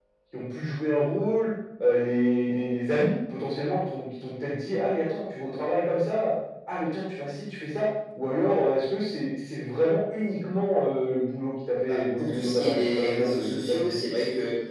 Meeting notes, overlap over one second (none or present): present